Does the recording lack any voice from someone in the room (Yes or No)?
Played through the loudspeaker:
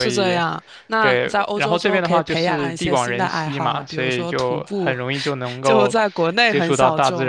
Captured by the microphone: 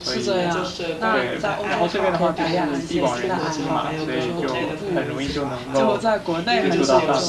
No